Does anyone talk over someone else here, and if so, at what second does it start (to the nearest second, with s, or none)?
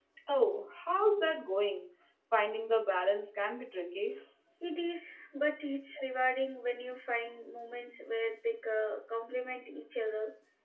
none